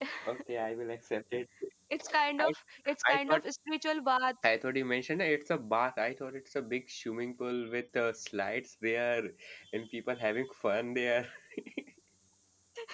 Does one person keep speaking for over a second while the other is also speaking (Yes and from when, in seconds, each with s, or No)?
No